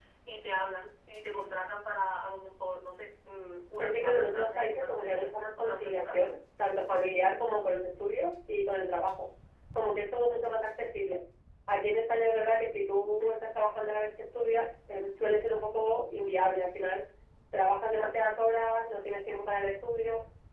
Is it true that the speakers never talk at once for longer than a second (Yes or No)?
No